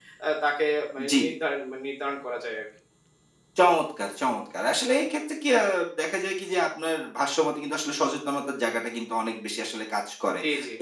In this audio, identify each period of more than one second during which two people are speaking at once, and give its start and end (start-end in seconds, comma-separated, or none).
none